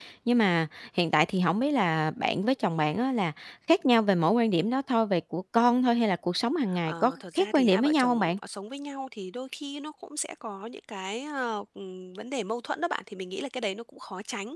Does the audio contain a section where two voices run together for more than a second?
Yes, from 6.7 s

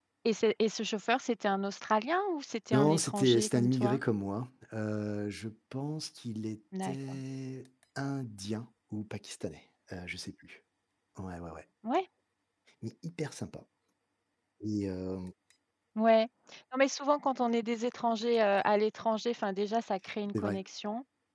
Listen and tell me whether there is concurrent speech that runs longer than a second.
Yes, from 2.7 s

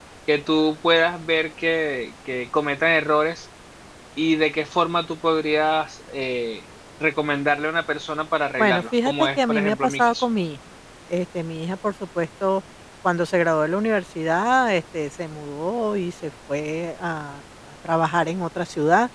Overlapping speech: Yes, from 8.6 s

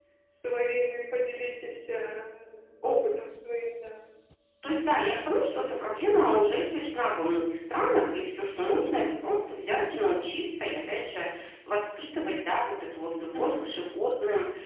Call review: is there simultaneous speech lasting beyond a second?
No

